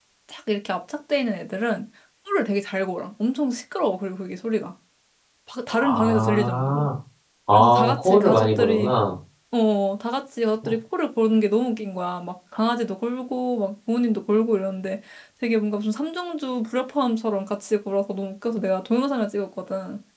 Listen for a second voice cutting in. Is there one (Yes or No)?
Yes